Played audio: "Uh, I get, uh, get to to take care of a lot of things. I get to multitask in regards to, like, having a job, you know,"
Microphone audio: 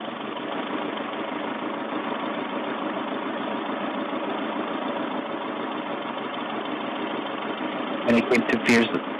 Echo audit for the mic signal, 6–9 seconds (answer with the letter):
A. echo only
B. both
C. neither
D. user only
D